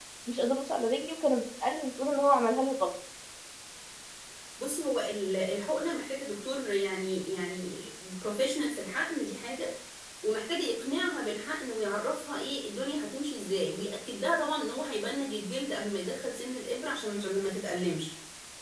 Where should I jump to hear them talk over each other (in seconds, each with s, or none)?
none